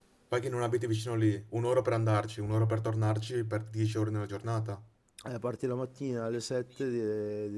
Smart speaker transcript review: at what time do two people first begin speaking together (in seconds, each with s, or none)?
none